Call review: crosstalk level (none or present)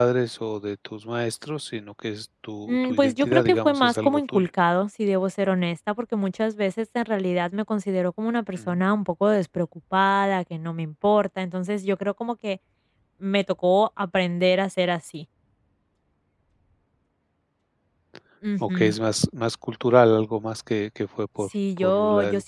present